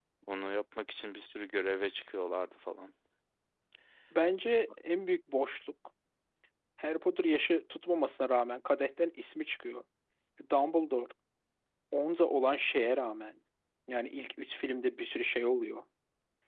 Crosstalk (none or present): none